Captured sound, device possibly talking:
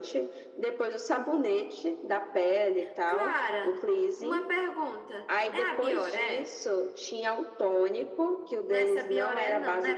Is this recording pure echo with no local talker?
Yes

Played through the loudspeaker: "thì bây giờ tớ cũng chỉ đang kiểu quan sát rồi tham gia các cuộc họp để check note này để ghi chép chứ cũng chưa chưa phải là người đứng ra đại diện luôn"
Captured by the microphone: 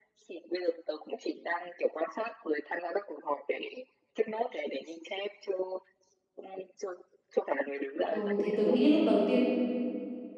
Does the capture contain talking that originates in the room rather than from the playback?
Yes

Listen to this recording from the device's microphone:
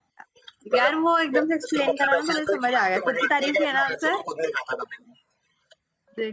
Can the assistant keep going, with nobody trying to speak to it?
No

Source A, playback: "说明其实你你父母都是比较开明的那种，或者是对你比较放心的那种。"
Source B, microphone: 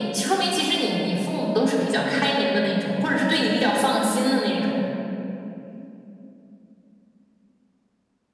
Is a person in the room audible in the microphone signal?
No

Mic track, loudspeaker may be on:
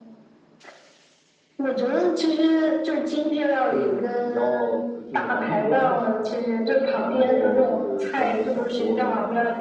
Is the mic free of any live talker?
No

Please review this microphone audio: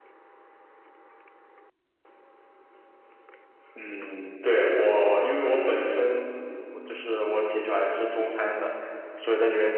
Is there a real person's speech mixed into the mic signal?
No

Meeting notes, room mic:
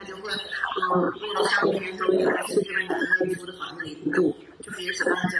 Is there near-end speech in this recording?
No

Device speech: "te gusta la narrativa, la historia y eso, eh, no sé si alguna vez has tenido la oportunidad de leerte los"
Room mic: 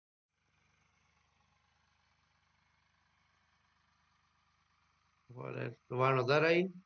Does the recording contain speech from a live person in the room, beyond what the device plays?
Yes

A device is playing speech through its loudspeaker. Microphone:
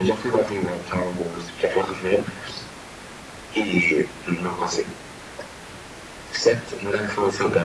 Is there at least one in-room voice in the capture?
No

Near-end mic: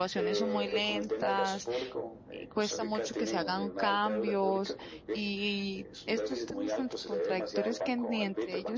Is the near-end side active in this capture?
Yes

